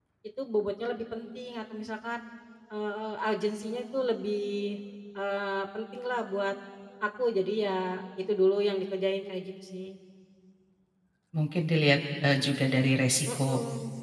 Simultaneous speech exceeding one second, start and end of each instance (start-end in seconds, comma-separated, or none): none